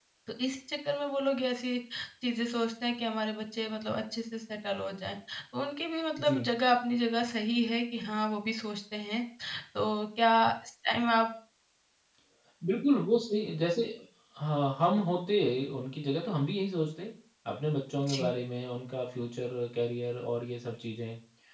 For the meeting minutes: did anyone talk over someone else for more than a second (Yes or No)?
No